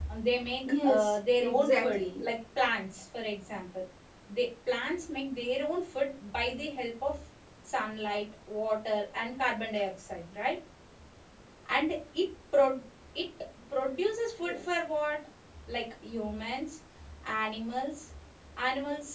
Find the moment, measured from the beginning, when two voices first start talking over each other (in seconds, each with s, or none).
0.6 s